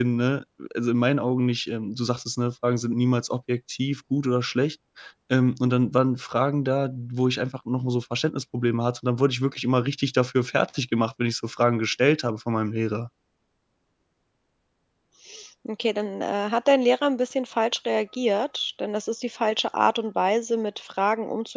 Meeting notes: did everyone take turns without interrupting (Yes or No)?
Yes